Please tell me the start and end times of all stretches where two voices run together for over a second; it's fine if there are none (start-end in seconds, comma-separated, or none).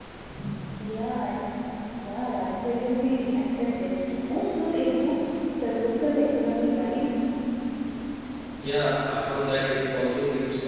none